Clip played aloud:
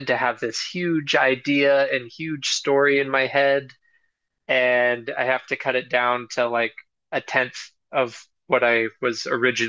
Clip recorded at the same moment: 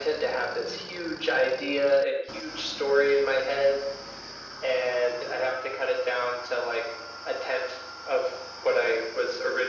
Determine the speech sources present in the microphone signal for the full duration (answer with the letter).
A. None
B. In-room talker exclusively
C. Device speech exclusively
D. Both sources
C